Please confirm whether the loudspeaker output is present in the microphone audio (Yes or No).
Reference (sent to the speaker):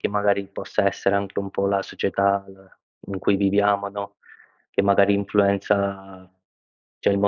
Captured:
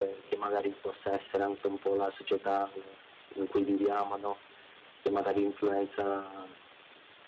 Yes